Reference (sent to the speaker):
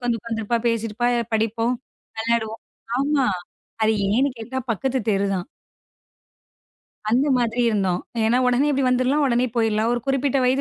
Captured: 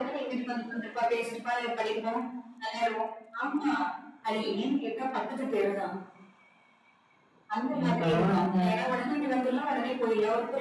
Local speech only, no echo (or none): ஏய் பரவால்லங்க.